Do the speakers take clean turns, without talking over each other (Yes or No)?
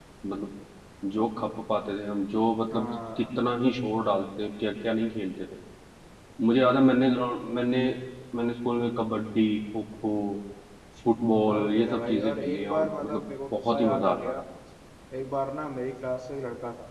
No